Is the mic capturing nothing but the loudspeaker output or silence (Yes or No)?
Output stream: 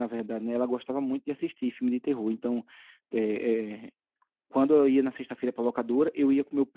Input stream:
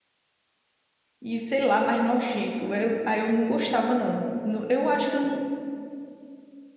No